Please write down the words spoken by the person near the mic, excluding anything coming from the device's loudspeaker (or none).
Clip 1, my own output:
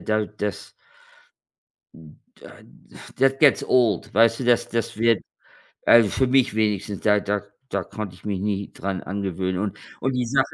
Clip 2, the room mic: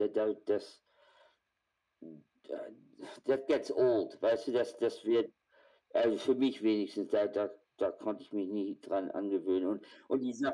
none